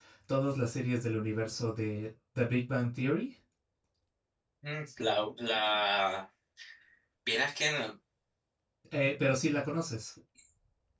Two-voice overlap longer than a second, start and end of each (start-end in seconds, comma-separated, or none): none